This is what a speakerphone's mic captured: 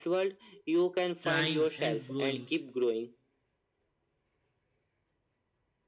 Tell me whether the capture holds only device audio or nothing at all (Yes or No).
No